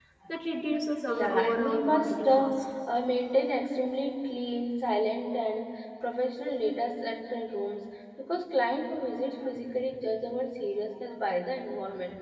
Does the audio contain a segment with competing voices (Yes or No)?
Yes